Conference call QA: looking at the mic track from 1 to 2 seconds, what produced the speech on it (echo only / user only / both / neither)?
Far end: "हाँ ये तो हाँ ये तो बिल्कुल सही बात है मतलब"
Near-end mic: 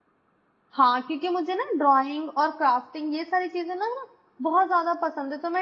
user only